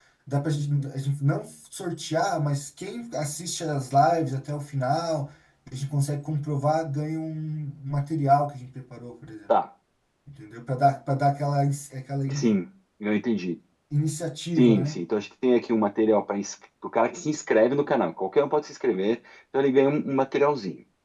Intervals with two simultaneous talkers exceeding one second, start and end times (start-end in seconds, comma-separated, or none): none